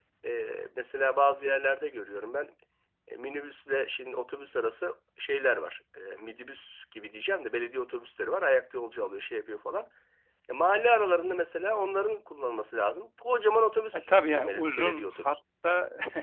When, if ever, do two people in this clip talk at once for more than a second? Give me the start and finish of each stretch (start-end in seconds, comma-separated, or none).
13.9-15.4